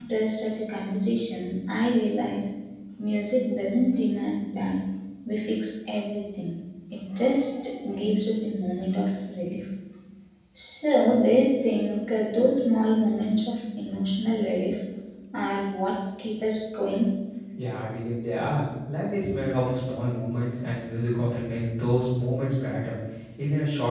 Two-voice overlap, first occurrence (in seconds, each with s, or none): none